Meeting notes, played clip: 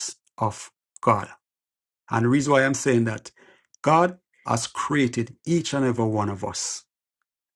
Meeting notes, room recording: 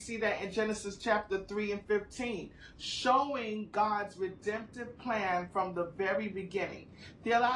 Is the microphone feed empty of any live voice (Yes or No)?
No